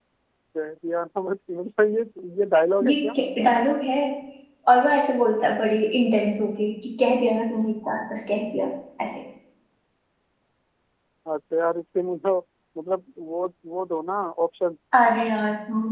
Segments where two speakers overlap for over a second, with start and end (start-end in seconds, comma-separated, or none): none